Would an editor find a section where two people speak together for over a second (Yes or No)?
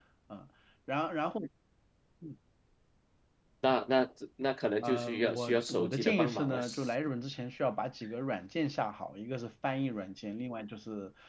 Yes